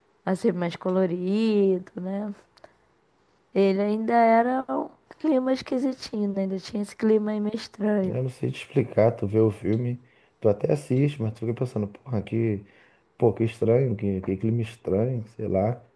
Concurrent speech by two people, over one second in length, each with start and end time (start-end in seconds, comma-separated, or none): none